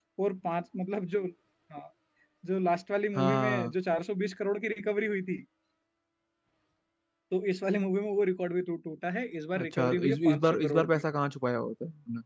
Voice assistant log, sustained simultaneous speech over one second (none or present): present